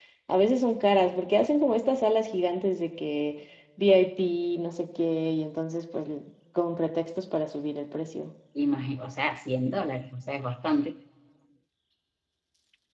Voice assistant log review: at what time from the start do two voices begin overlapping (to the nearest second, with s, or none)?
none